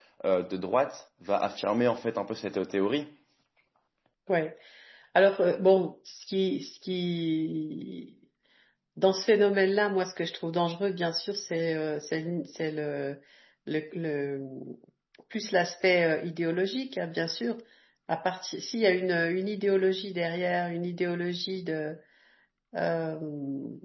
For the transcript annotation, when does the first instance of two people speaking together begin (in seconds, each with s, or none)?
none